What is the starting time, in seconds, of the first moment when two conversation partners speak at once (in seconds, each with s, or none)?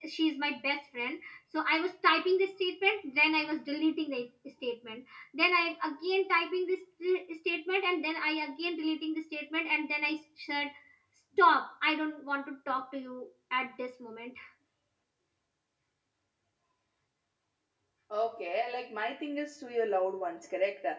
none